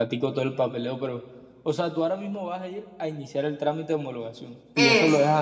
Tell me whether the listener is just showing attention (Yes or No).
Yes